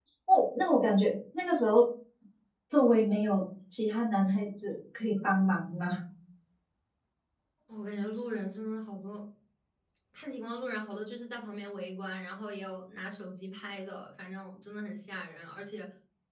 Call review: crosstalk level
none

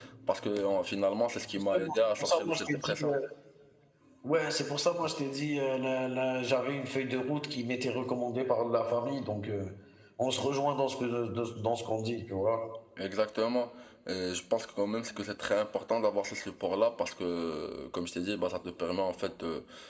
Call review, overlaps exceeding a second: present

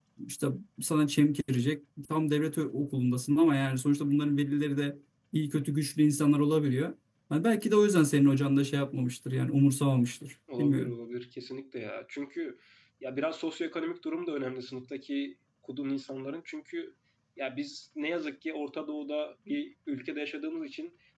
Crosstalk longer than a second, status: none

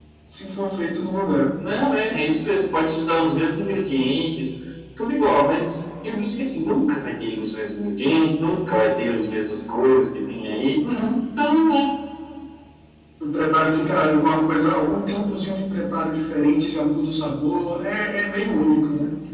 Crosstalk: none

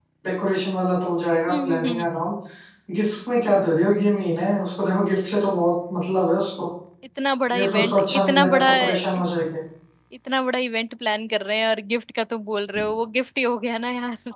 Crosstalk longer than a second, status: present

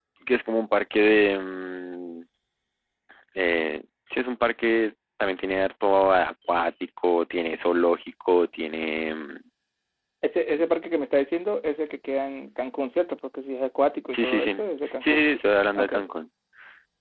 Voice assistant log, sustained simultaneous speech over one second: none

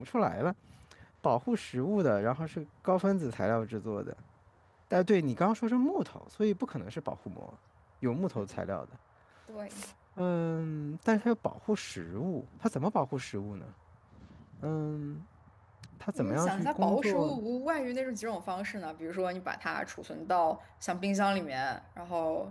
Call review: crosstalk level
present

